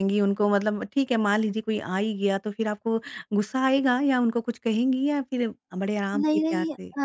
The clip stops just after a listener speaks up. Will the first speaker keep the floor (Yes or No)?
No